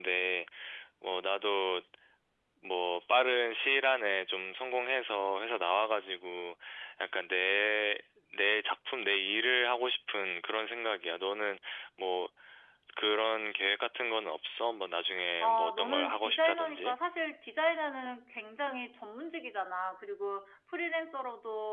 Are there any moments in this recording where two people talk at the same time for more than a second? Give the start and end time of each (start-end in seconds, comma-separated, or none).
15.4-17.0